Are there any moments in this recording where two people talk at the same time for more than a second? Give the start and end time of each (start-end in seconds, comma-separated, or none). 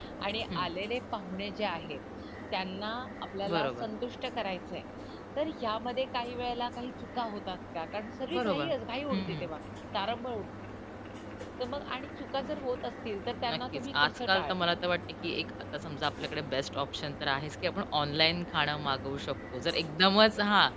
13.5-14.7